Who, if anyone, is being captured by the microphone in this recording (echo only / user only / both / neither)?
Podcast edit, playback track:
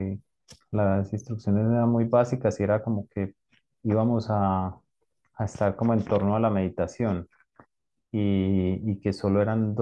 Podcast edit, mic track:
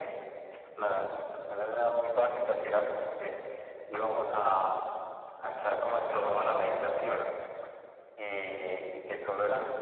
echo only